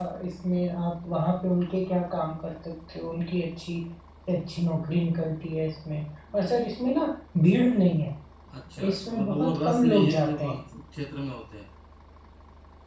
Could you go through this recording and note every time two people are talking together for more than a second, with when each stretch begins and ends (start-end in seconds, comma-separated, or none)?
8.9-10.6